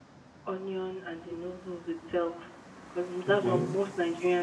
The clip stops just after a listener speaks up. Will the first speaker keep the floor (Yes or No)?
Yes